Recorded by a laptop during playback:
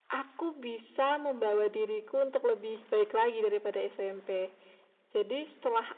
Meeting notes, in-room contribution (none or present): none